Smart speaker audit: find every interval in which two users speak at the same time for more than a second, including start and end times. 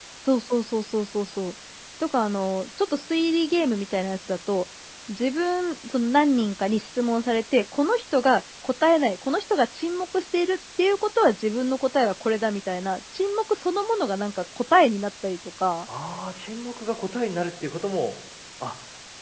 none

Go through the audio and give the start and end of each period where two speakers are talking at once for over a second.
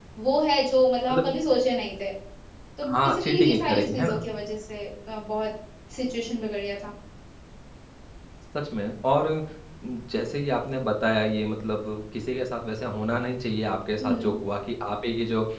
2.9-4.2

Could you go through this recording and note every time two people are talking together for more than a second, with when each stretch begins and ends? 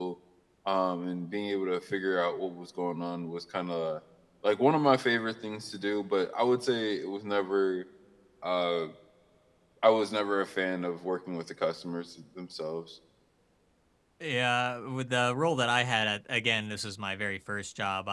none

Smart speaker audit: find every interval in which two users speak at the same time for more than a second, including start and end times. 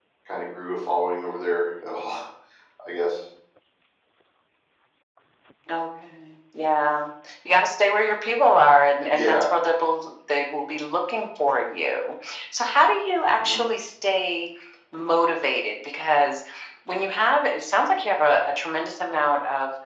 none

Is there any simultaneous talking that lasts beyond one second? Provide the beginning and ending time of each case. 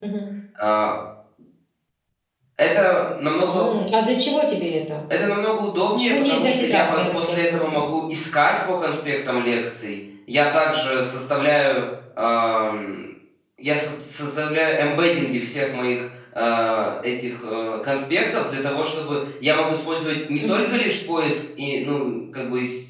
5.9-7.8

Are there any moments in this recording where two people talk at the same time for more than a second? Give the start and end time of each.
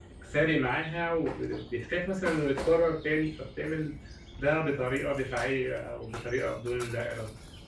none

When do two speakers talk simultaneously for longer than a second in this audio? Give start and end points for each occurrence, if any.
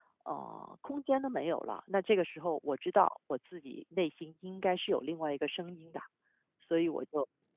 none

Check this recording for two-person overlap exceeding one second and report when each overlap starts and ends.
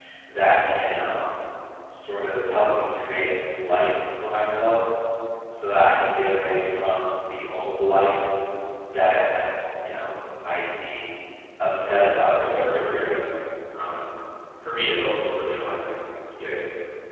11.8-13.2

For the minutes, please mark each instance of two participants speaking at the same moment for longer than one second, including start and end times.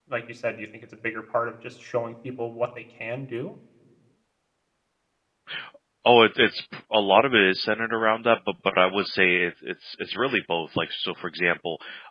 none

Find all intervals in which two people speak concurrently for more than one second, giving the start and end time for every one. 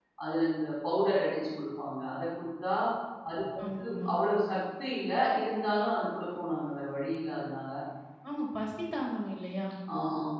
none

